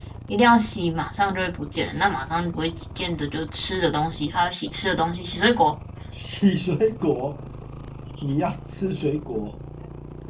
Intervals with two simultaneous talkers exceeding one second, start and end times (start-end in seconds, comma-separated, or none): none